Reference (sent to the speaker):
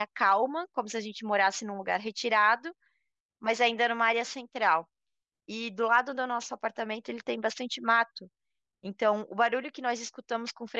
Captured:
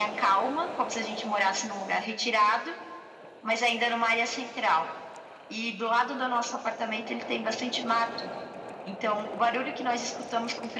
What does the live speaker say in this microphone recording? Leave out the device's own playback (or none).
none